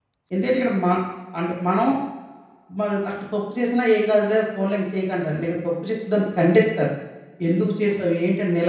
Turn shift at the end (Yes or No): No